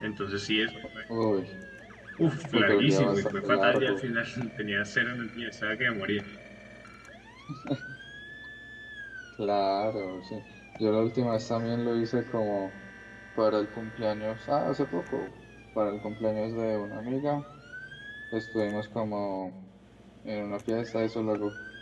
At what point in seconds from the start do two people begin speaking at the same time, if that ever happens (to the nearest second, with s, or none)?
3 s